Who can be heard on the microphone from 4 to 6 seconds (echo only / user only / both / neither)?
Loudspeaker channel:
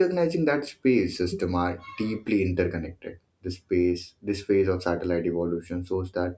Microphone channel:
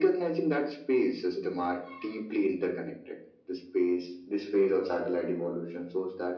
echo only